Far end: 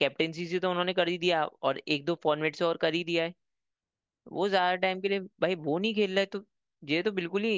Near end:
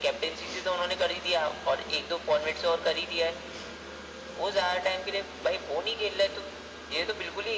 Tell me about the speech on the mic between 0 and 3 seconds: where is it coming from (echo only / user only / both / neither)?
echo only